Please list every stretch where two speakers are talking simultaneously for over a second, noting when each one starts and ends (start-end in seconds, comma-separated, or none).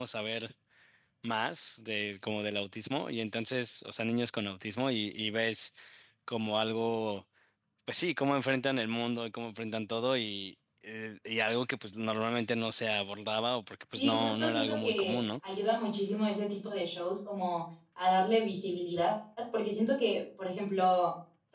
14.0-15.2